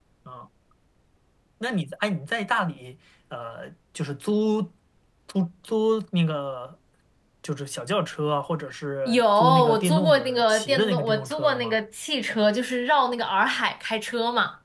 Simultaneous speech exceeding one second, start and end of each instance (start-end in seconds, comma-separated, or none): 9.1-11.8